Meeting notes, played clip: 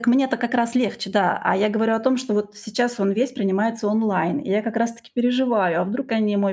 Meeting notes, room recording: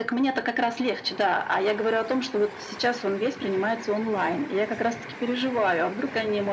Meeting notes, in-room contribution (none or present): none